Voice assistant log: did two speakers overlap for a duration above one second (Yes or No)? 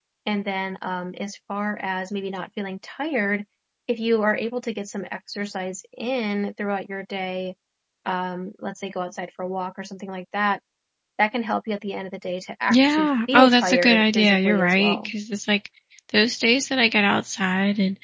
Yes